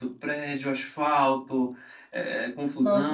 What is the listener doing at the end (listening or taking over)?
listening